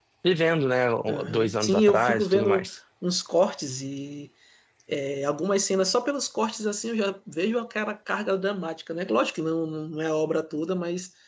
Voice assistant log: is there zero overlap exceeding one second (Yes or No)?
No